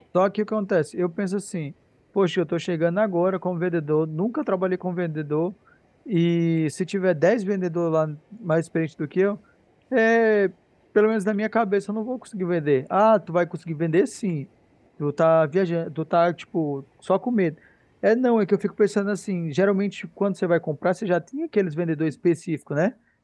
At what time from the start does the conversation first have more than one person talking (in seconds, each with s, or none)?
none